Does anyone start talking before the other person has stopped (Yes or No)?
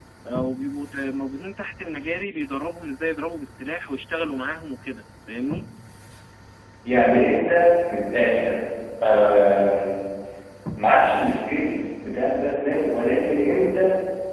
No